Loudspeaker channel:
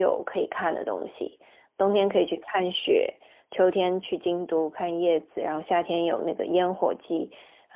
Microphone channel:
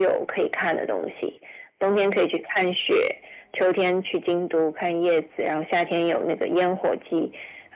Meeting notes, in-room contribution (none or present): none